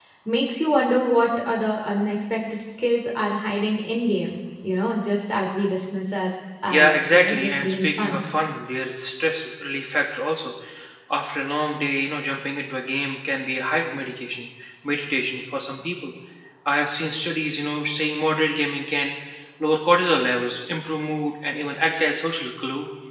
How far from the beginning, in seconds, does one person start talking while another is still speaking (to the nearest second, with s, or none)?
7 s